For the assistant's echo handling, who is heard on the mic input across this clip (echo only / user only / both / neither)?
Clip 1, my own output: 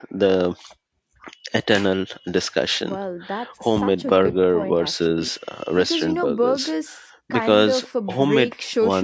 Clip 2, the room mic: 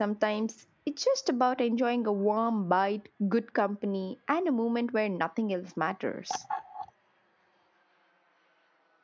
user only